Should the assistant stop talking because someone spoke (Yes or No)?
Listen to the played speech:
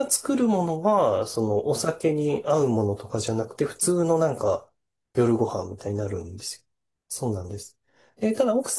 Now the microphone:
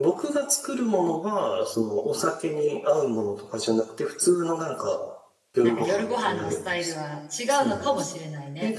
Yes